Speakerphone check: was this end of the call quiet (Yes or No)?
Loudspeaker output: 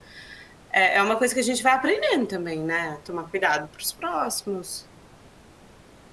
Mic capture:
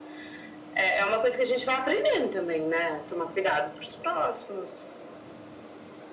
Yes